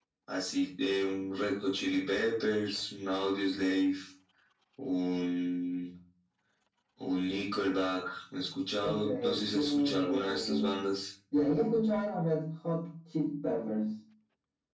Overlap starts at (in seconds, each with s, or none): 8.8 s